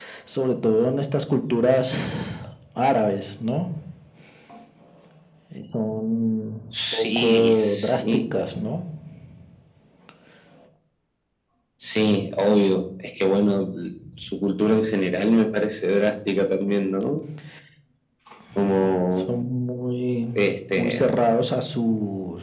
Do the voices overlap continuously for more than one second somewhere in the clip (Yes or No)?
Yes